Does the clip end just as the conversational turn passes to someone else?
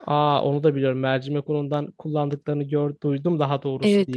Yes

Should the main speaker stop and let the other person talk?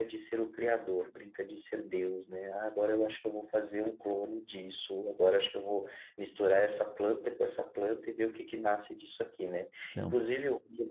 No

